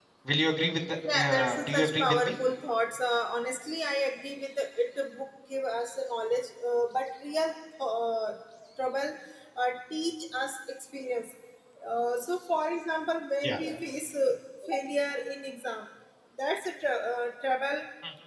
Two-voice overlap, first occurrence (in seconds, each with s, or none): 1.1 s